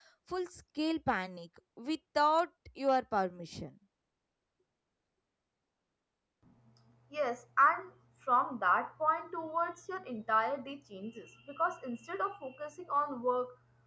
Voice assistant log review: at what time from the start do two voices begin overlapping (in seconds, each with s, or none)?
none